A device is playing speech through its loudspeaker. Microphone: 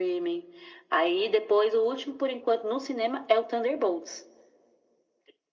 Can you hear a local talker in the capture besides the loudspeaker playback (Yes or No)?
No